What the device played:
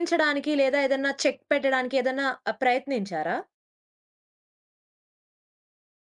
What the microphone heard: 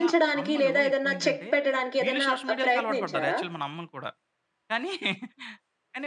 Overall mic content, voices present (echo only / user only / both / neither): both